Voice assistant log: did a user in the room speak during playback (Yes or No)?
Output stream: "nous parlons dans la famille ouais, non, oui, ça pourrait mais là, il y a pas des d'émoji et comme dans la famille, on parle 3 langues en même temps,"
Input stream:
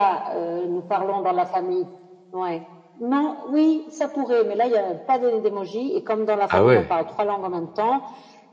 Yes